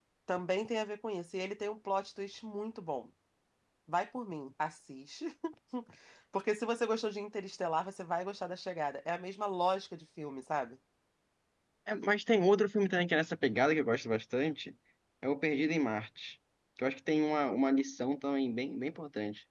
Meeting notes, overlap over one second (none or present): none